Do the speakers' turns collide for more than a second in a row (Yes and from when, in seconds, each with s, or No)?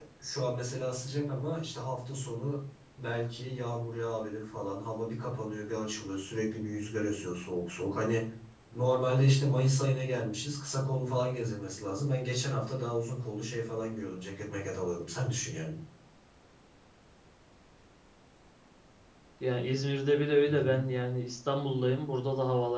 No